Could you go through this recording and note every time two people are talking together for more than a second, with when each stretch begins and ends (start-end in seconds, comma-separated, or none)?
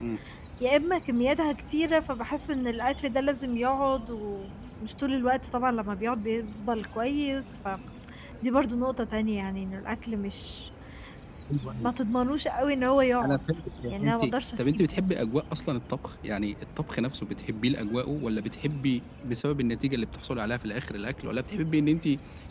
none